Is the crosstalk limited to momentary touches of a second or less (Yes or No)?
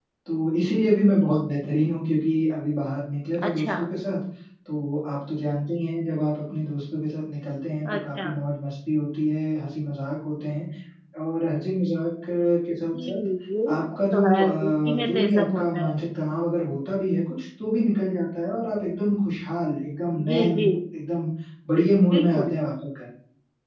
No